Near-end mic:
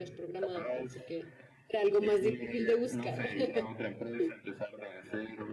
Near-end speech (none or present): present